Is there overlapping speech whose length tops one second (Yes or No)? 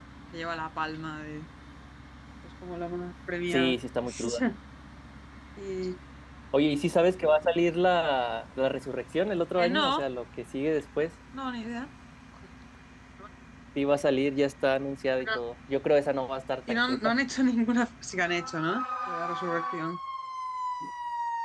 No